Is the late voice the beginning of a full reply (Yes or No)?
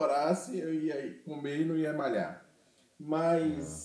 No